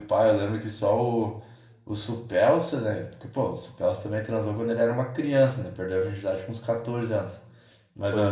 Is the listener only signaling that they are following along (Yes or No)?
Yes